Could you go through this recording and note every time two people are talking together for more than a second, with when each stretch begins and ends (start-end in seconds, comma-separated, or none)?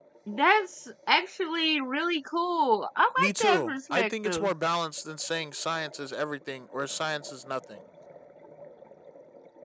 3.2-4.5